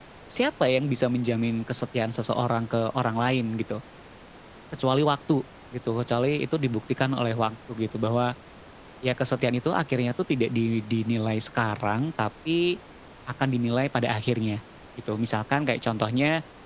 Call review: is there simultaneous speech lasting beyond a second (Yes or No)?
No